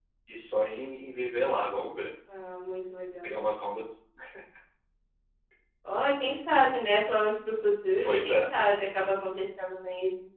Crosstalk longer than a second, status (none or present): none